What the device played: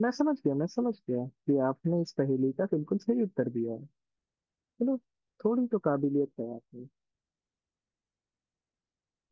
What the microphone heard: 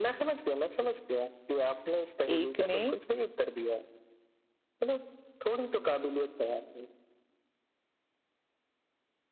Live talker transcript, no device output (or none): एक ने